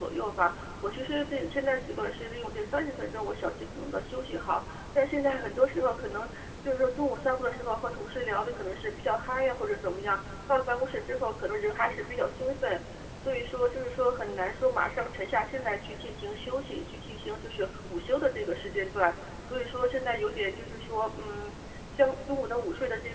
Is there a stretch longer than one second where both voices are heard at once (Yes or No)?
No